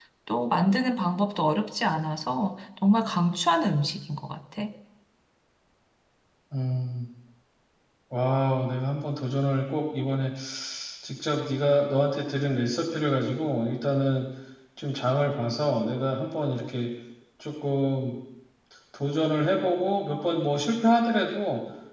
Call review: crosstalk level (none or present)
none